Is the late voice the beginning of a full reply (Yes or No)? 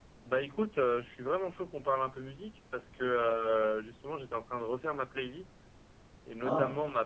No